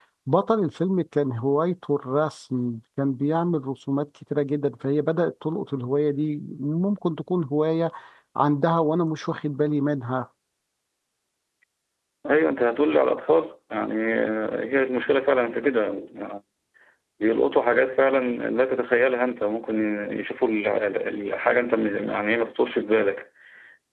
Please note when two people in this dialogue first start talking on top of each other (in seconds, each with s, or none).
none